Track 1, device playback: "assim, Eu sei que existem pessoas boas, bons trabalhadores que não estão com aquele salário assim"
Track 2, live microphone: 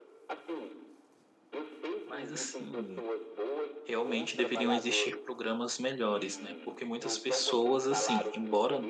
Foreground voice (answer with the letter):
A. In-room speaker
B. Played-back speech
A